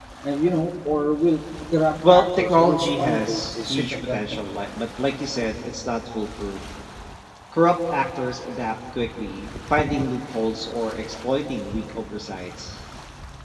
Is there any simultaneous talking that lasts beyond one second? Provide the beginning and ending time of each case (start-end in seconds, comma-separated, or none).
2.1-4.4